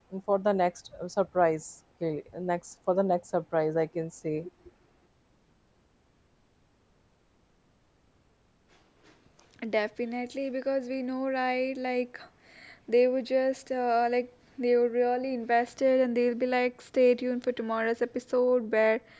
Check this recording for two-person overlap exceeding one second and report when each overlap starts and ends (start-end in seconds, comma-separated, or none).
none